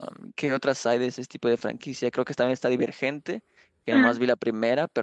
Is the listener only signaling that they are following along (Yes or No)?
Yes